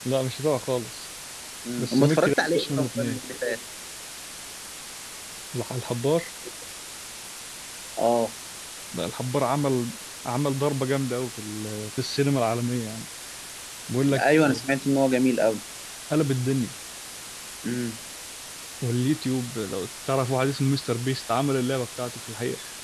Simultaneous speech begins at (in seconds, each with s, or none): 1.8 s